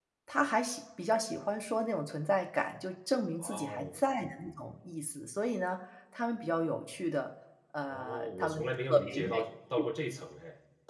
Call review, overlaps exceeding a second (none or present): present